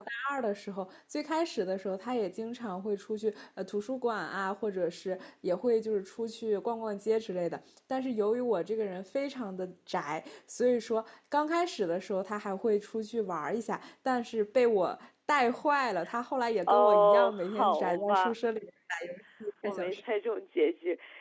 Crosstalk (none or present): present